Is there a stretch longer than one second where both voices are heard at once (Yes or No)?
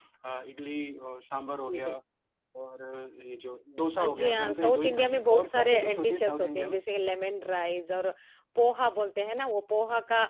Yes